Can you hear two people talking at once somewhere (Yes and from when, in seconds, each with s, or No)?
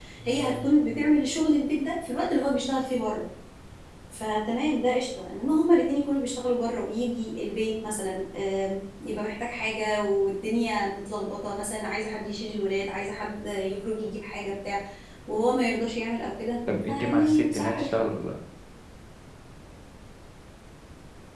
Yes, from 16.7 s